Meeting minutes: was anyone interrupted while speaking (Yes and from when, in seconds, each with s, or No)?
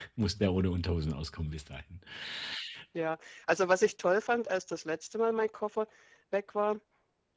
No